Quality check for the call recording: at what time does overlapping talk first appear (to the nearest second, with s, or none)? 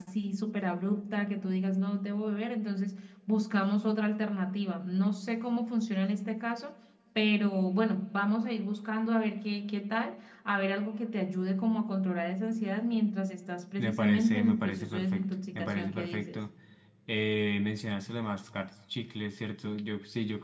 14 s